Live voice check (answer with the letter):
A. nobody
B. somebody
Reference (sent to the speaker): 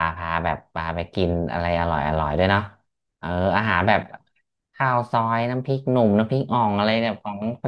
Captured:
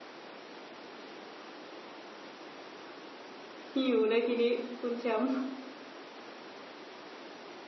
B